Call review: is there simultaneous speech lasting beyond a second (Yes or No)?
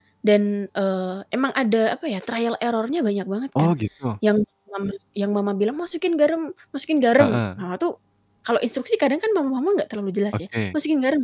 No